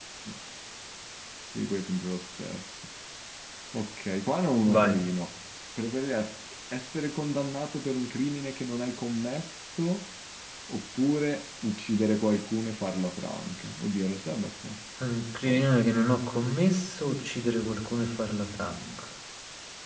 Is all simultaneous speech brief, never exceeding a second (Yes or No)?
Yes